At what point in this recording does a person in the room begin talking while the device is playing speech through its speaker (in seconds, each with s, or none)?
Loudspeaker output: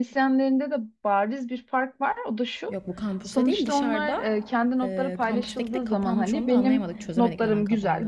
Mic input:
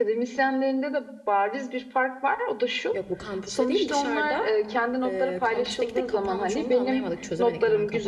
none